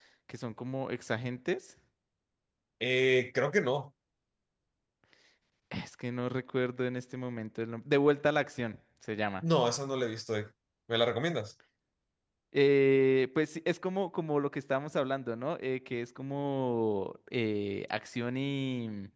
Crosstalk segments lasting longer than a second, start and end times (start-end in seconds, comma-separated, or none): none